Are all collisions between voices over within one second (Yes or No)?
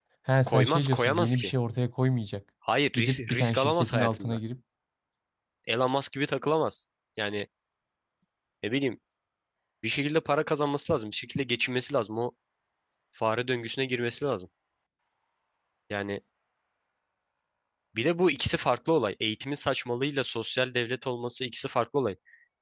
No